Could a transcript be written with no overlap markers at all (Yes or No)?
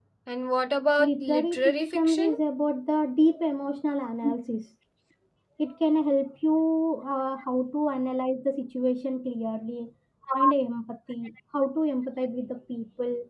No